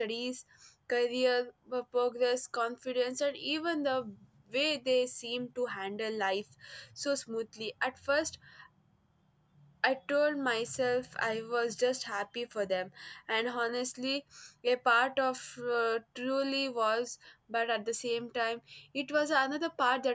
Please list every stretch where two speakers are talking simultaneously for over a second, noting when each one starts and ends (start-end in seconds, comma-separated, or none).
none